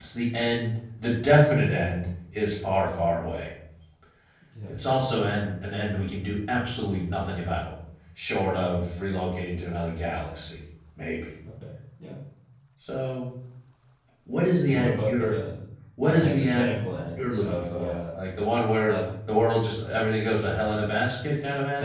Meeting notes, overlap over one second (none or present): present